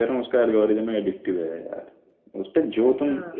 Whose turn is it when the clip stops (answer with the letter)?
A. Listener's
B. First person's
B